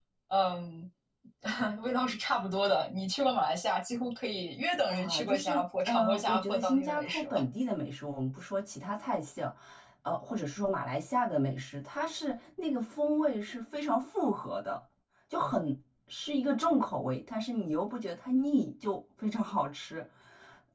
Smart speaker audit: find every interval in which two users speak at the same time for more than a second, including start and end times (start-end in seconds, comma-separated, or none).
4.9-7.4